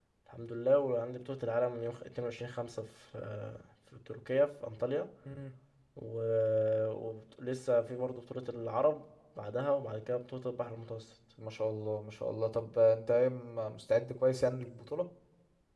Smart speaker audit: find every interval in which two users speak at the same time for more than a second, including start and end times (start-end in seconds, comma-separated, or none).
none